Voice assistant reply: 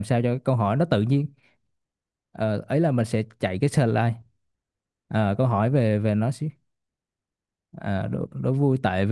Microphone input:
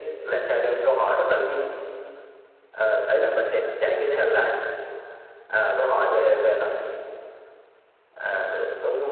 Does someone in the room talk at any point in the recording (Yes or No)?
No